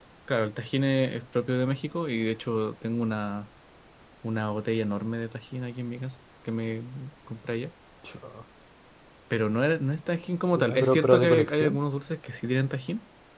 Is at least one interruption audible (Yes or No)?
Yes